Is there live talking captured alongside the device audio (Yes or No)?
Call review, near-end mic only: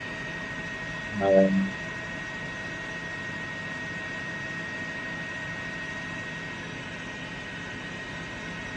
Yes